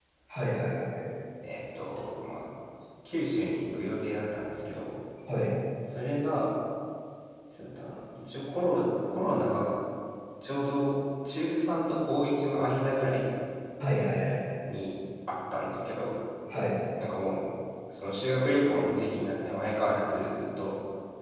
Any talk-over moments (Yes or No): No